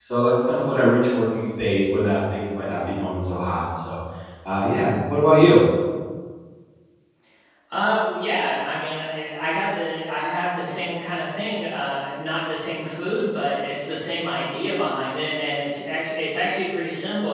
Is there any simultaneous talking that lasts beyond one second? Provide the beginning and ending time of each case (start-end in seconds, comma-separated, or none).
none